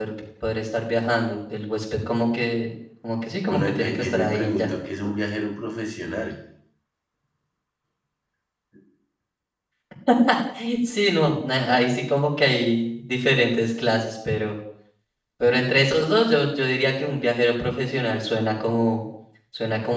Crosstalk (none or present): present